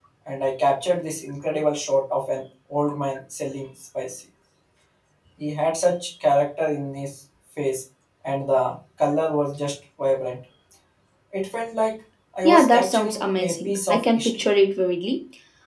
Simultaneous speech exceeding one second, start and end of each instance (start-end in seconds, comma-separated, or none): 12.4-14.4